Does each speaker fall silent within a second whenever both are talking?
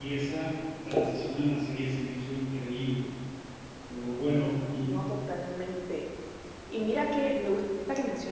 Yes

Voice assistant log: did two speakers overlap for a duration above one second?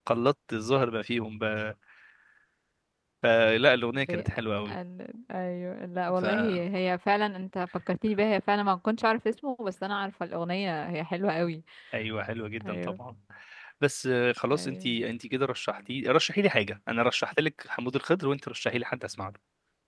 No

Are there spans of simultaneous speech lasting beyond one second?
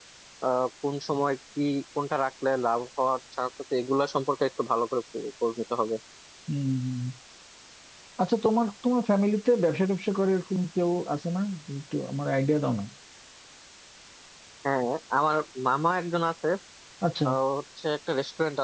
No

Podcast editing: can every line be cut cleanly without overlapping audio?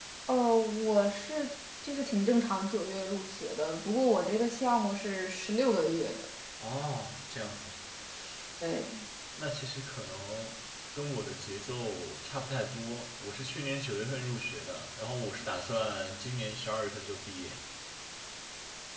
Yes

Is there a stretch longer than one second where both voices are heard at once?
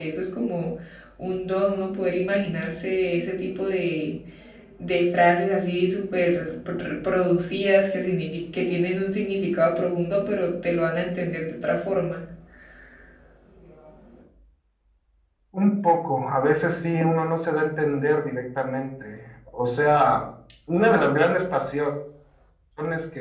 No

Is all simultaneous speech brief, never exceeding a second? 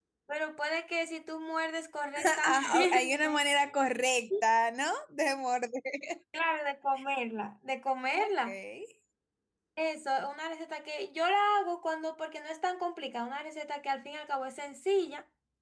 No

